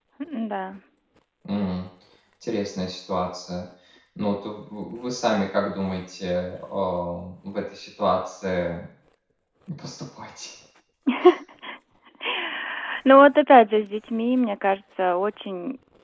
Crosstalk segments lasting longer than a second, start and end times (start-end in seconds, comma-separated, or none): none